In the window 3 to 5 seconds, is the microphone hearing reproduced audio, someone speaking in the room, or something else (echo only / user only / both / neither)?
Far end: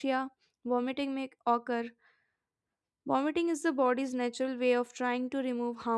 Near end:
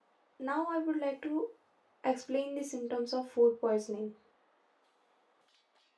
user only